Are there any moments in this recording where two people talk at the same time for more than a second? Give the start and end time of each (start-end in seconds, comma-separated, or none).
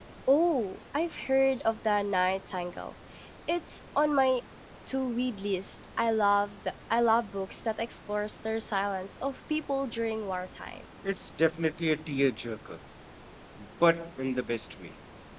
none